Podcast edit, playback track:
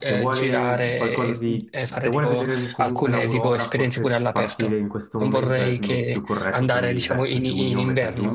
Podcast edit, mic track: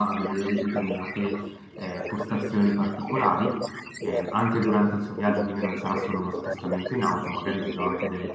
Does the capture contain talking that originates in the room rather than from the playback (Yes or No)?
Yes